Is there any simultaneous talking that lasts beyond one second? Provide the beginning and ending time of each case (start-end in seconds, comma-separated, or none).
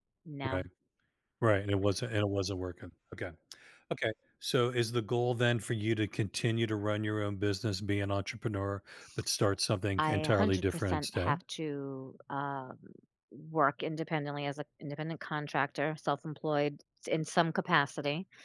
10.0-11.4